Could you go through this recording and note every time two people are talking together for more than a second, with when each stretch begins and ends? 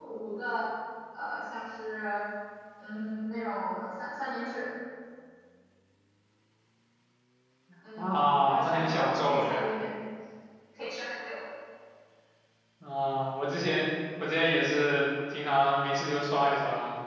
8.0-9.7

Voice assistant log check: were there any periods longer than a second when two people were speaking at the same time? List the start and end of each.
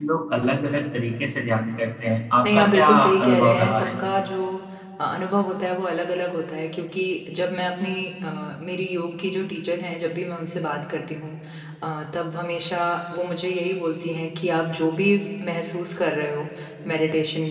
2.5-3.9

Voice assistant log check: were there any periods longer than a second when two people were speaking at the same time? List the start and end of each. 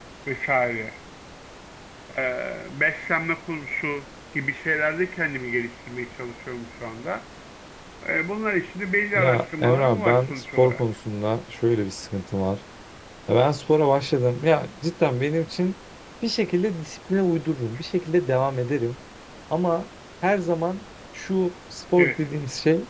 9.2-10.8

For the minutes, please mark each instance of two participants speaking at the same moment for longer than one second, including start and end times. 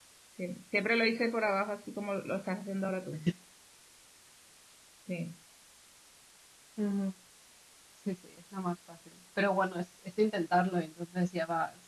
none

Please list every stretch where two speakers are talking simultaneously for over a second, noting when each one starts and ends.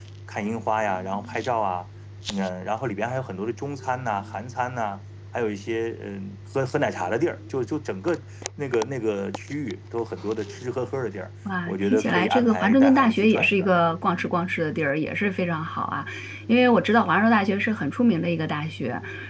11.7-13.7

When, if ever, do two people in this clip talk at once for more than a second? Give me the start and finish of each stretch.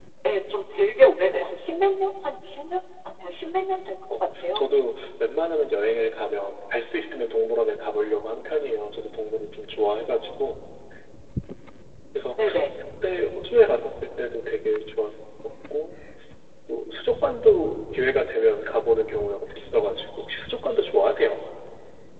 none

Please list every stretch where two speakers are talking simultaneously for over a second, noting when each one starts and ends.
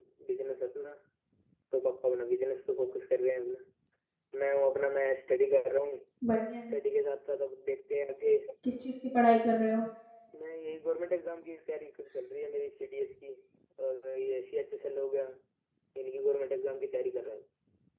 none

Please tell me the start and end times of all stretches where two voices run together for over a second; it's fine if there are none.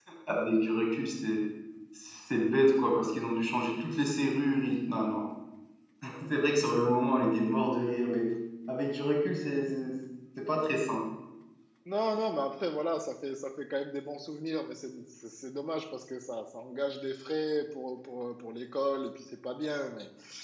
none

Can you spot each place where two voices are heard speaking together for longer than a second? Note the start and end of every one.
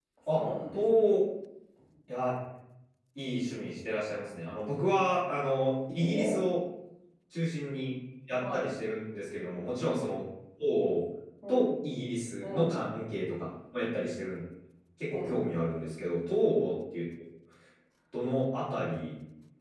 none

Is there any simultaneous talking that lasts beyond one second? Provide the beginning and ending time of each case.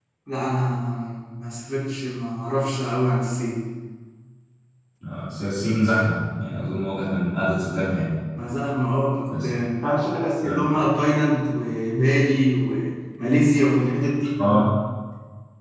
none

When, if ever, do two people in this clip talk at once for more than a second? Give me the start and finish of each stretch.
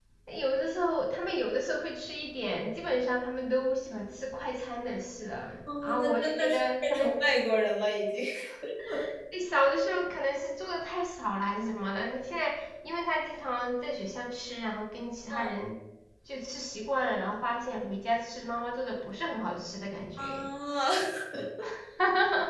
5.8-7.1

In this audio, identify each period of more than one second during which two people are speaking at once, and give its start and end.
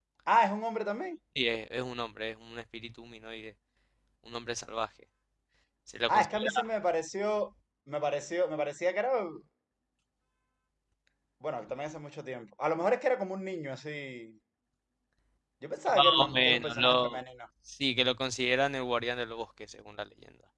15.9-17.2

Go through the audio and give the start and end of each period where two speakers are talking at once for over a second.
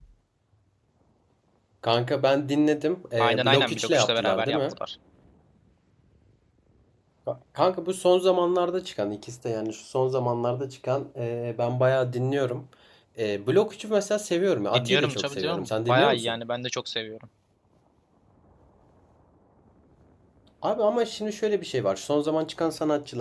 3.2-4.8, 14.7-16.4

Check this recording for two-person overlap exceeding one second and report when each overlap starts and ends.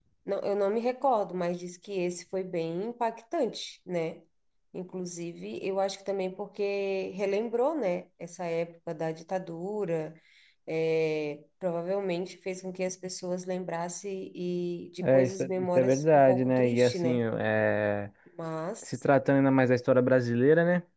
15.0-17.2

